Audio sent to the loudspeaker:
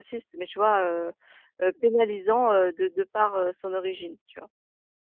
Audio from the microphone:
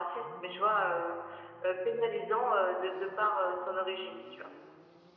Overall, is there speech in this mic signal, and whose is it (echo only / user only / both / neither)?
echo only